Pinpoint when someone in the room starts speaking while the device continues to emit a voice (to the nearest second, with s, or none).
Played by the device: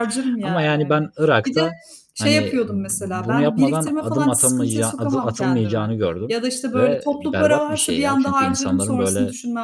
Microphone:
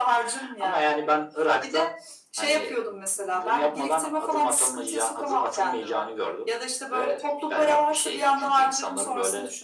none